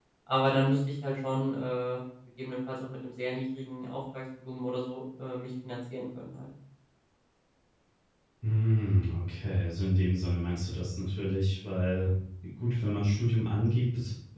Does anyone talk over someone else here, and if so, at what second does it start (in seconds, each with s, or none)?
none